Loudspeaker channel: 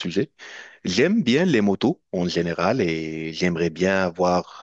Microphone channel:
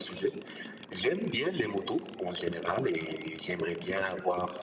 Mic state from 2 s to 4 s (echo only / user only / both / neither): echo only